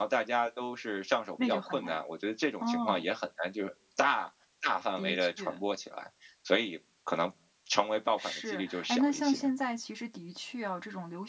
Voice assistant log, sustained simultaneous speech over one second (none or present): present